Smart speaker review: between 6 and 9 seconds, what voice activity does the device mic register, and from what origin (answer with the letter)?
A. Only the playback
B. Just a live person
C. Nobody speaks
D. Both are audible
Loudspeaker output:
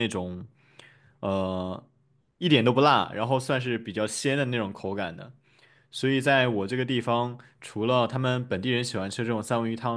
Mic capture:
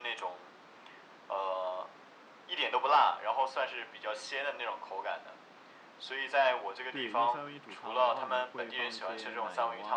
D